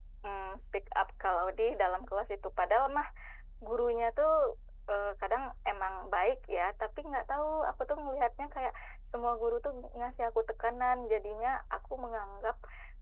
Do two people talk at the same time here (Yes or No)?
No